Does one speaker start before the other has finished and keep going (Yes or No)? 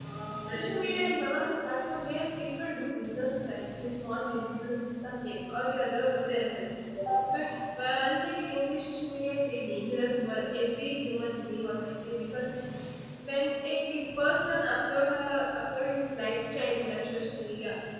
Yes